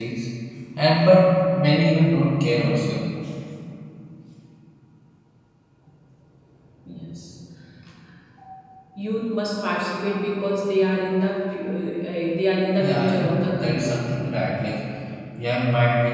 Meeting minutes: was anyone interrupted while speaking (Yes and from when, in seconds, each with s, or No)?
Yes, from 12.8 s